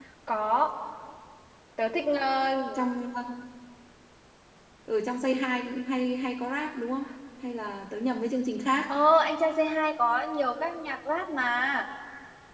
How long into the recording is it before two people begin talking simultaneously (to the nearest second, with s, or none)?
none